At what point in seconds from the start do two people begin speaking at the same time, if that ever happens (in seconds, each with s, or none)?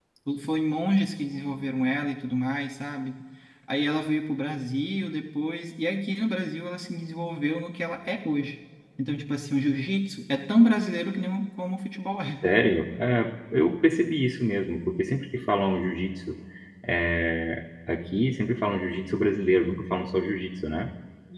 none